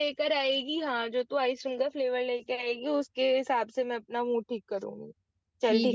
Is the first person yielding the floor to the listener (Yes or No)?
Yes